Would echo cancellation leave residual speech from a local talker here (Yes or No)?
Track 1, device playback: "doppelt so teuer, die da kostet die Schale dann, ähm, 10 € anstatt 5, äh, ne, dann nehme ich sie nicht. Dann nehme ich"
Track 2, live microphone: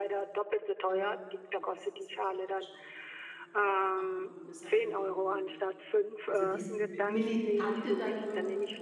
Yes